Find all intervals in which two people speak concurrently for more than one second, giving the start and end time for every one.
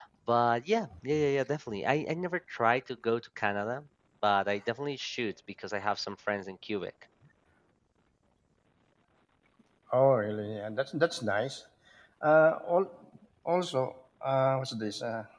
none

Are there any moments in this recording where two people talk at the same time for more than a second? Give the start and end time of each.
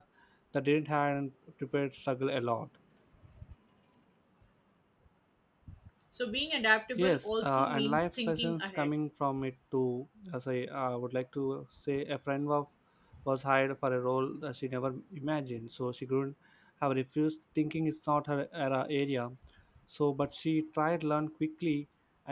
7.0-8.9

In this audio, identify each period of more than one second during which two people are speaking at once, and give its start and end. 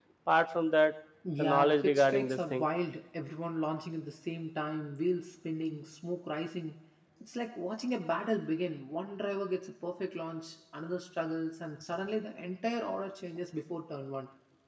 1.4-2.6

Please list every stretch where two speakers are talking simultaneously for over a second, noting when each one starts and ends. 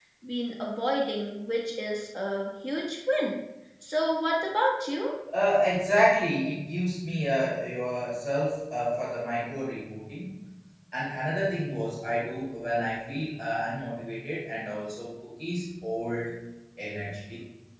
none

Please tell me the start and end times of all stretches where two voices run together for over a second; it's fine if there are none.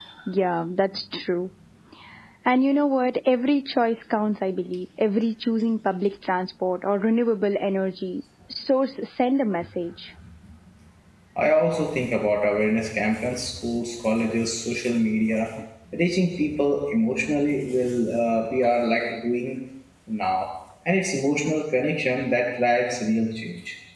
none

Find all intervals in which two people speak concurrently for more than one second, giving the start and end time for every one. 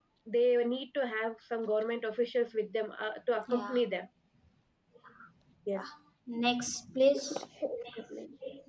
none

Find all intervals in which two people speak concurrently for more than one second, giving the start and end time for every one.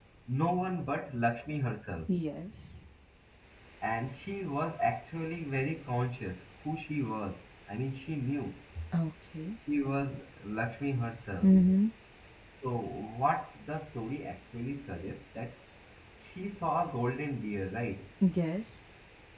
none

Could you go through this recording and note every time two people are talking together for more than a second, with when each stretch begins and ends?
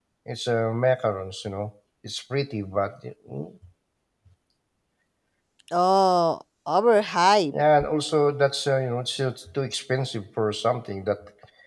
none

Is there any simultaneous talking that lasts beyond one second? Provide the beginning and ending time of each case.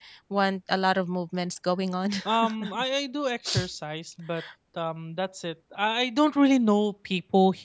none

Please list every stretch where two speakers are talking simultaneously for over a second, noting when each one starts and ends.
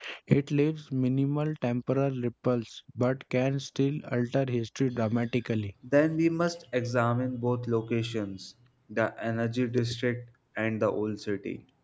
none

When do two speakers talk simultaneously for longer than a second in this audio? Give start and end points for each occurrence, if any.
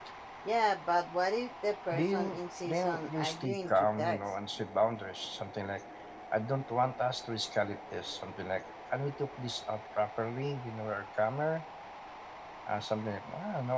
1.9-4.2

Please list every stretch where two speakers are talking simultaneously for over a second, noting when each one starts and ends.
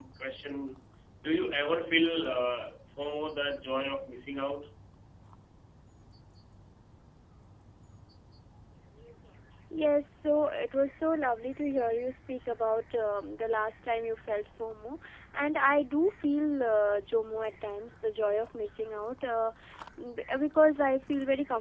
none

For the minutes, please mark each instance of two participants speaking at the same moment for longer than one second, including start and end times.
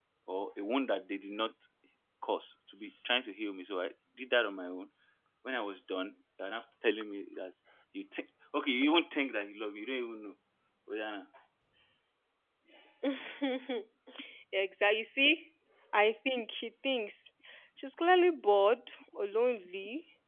none

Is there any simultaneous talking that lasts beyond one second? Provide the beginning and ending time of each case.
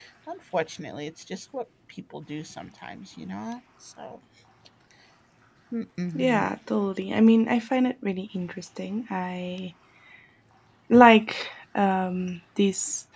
none

